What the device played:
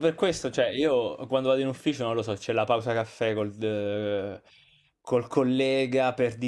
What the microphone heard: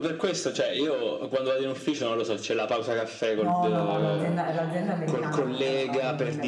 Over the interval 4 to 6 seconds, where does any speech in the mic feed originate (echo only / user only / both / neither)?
both